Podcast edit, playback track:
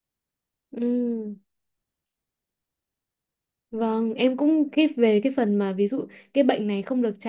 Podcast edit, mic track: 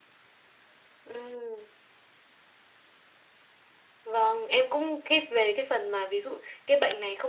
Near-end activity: none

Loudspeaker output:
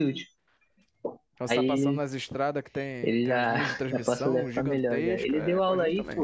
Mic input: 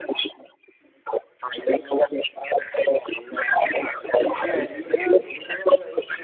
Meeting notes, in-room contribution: present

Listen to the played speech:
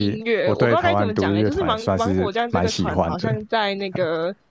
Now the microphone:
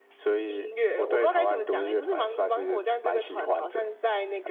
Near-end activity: none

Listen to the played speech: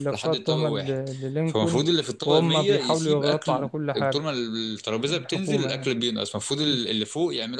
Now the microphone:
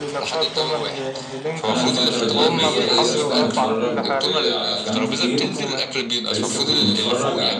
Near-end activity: present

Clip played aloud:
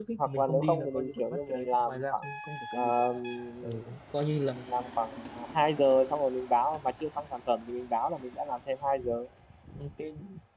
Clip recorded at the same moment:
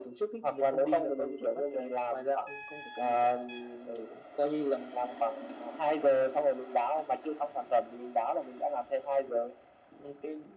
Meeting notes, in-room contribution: none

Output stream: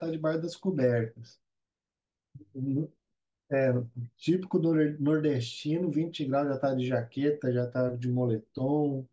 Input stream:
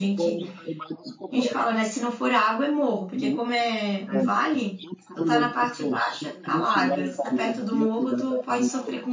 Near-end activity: present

